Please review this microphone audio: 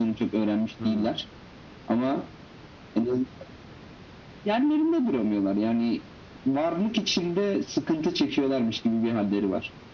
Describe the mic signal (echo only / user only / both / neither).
both